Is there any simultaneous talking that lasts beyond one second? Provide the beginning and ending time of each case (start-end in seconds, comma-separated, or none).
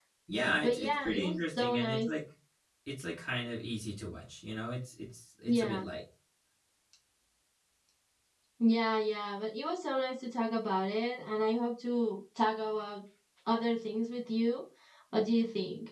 0.6-2.1